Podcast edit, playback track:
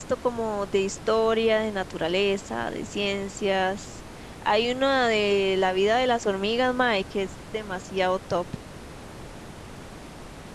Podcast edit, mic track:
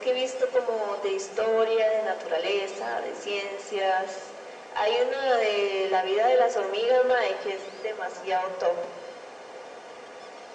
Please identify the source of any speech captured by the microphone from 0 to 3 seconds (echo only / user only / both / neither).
echo only